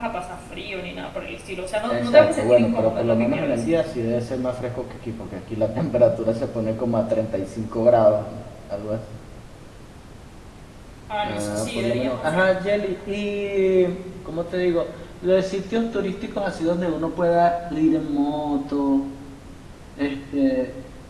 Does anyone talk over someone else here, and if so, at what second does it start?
1.9 s

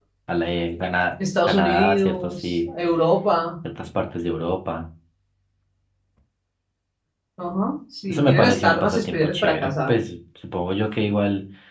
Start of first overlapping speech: 1.5 s

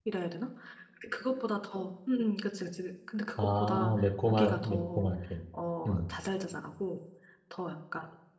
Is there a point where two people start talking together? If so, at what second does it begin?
3.4 s

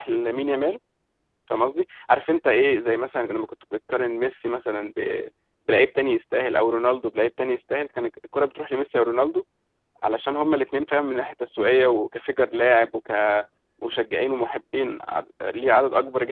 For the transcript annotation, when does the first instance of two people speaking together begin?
none

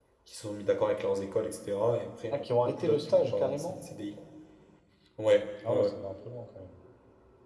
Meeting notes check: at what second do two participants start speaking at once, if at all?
2.3 s

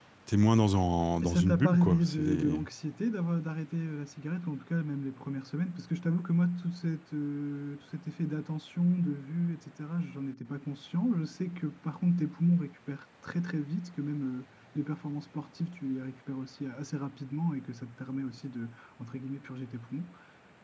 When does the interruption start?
1.2 s

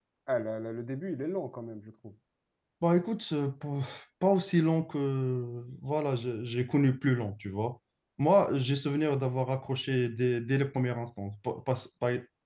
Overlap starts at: none

